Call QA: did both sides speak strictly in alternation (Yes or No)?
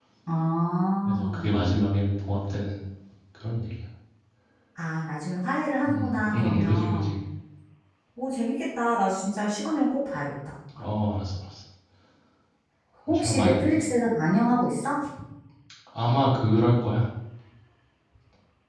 No